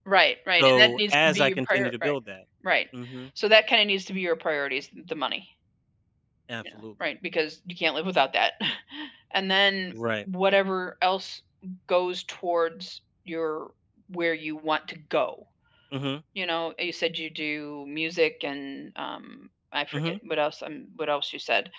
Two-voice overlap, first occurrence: 0.6 s

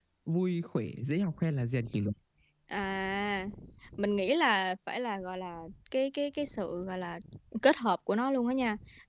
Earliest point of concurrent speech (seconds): none

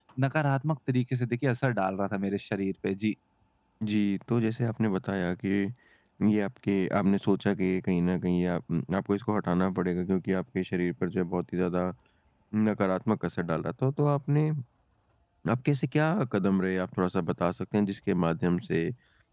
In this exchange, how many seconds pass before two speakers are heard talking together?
none

